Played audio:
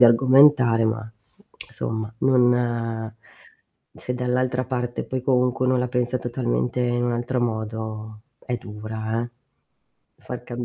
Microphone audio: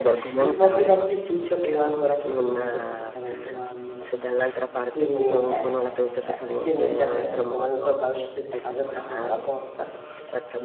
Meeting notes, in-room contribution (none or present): present